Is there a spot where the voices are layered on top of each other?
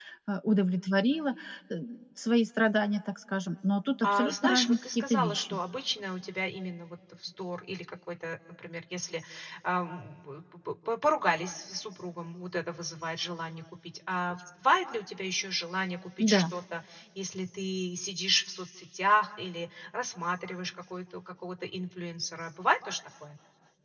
Yes, from 4.0 s

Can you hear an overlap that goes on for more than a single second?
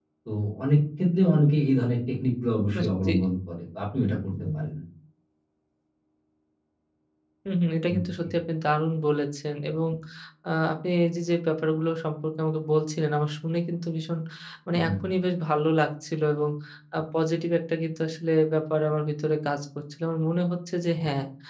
No

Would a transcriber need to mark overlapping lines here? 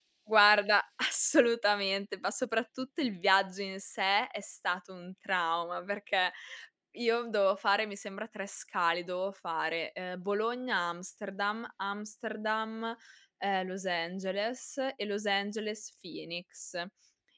No

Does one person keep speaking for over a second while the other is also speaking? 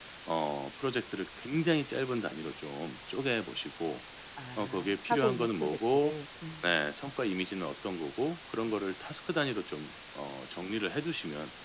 Yes, from 4.6 s

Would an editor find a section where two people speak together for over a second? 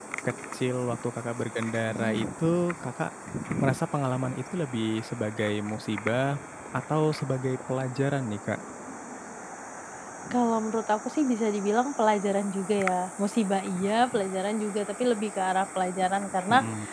No

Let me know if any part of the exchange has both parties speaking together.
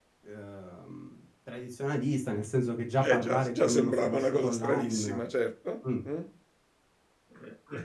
Yes, from 3.0 s

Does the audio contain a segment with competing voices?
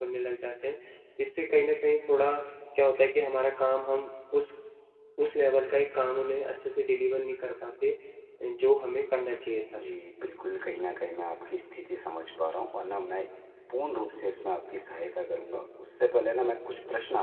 No

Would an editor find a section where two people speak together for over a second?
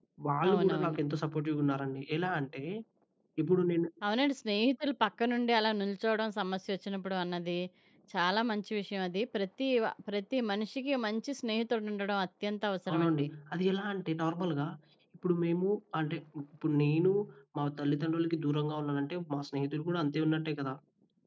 No

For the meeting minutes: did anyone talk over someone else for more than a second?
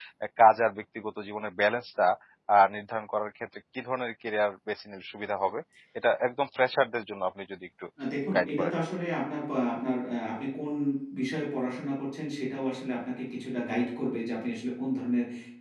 No

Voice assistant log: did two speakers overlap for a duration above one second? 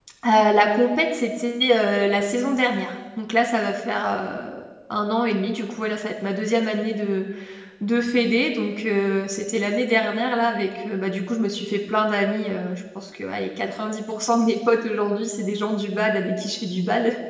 No

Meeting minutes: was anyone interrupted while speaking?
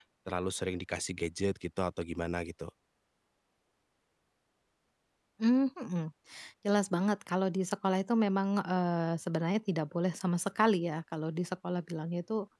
No

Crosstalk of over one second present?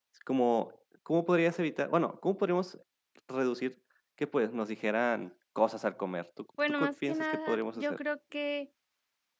Yes, from 6.6 s

